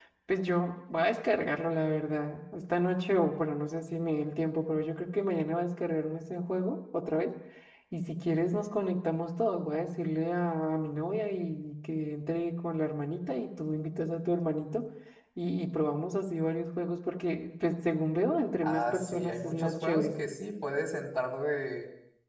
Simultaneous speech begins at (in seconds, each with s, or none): 18.6 s